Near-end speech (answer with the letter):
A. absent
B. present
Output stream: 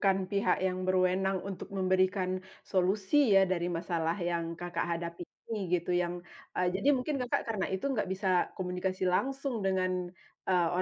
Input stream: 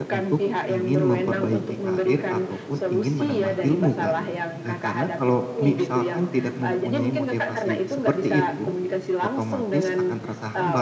B